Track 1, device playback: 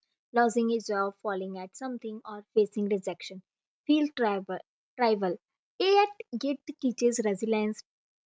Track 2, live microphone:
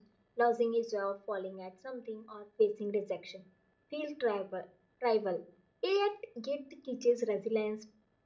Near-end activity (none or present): none